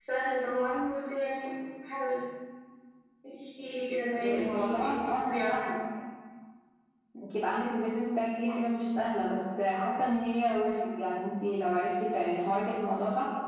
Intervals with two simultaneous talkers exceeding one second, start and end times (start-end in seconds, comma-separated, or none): 4.2-5.6